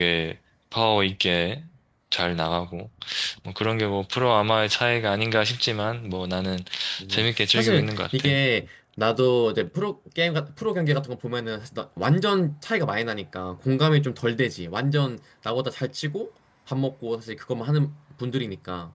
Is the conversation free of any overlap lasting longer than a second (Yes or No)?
No